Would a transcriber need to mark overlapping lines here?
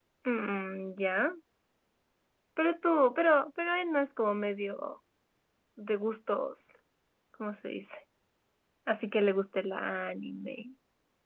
No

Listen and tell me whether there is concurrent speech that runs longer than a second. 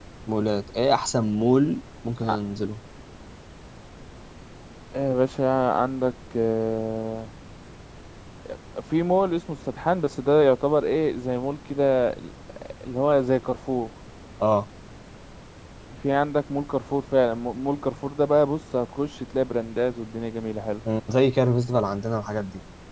No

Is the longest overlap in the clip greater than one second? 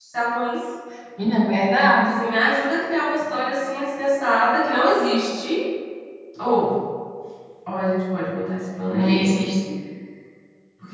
No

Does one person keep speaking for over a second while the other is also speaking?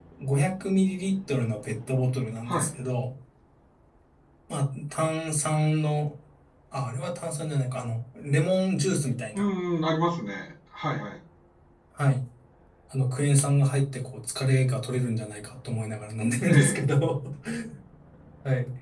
No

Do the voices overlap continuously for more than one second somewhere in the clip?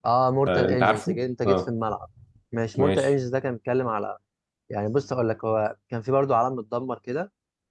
Yes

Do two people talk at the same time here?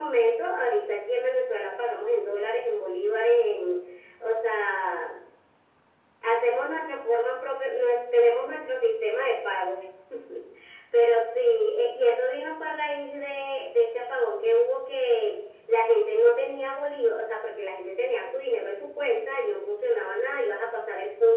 No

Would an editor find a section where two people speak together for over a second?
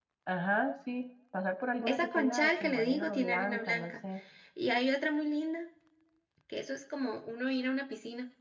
Yes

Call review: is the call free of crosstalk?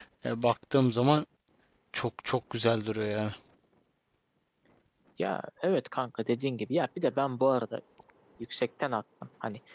Yes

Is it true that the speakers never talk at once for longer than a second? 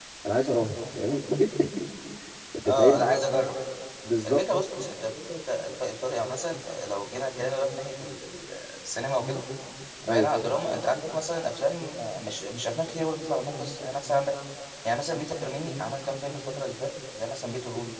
Yes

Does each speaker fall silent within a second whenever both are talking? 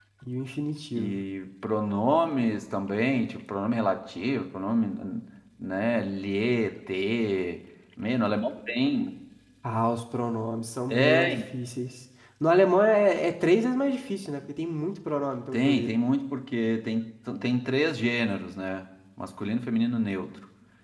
Yes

